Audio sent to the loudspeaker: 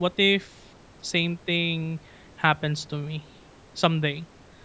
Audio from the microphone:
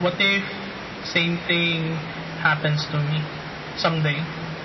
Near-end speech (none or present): none